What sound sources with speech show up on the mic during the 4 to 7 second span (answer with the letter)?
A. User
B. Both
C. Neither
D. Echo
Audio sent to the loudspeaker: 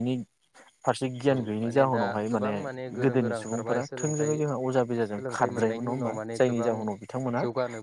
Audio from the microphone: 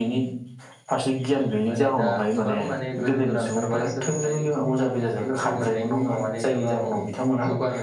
D